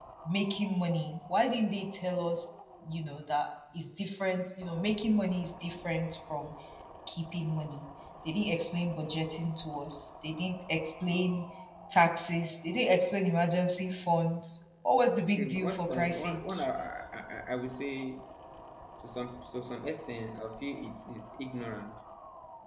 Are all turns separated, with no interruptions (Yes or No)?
No